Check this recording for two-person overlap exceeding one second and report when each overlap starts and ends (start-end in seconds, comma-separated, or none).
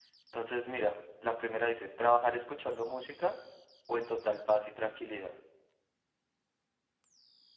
none